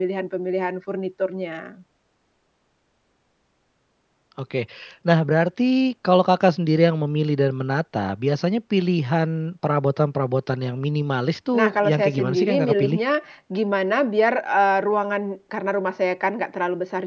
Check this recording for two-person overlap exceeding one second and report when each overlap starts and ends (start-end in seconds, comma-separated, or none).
11.5-13.0